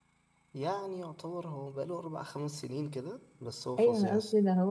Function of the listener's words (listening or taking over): taking over